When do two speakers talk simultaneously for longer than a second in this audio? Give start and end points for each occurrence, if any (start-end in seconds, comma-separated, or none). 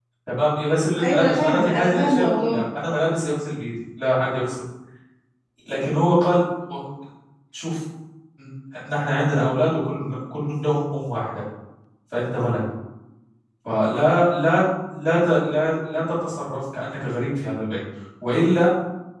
1.0-2.6